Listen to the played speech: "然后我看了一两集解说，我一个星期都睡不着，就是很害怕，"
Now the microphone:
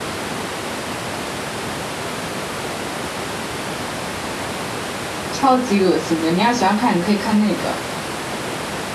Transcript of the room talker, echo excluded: 超级恶心的。你要喜欢看，你可以看那个。

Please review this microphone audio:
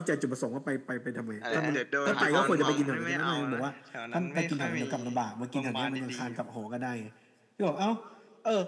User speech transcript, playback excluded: อะไรนะประธานห้องห้อง

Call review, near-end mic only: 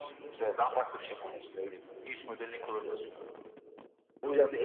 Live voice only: none

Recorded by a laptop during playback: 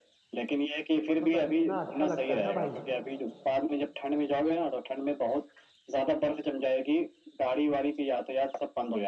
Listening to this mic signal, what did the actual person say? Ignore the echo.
और मतलब इतना अच्छा लगता है ना भाई

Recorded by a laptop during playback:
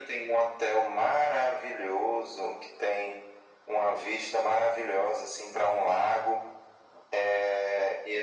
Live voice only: none

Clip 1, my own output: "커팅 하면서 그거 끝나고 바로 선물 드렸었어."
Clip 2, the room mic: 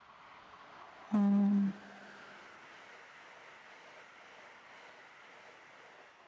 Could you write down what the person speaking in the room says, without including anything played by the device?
어.

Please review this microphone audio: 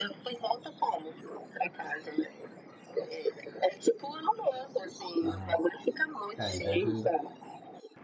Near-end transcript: Aham. É, e deve,

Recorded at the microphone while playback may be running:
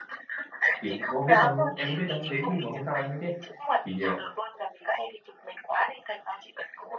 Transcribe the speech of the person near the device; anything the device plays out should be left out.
thì em có biết đâu em có biết đâu đến khi mà hôm sau em mới biết thì ờ,

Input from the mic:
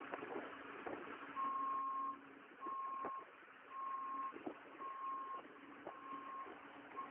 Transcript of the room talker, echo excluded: none

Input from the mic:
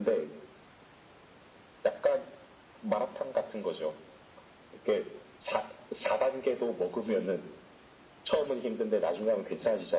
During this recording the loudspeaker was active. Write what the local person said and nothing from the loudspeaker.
none

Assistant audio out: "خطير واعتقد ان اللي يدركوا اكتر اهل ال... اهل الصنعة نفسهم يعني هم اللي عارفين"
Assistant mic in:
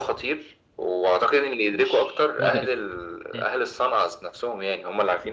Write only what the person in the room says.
مش مدرك مم،

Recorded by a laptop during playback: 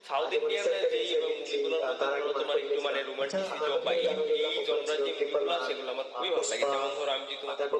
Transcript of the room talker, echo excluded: আচ্ছা আহ তুমি কোন

